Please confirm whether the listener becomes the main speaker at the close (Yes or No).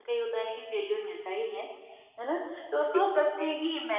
No